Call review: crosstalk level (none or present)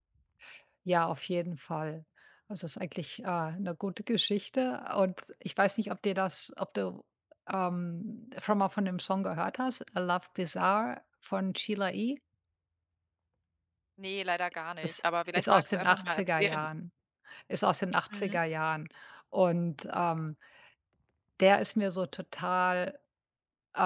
present